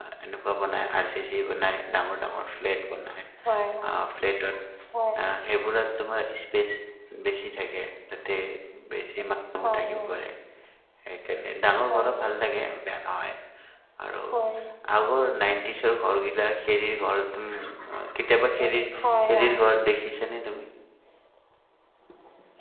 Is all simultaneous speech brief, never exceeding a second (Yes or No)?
Yes